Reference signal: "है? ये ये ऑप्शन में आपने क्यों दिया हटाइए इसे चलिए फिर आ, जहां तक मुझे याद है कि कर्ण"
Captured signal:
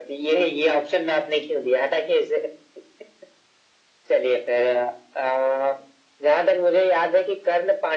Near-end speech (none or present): none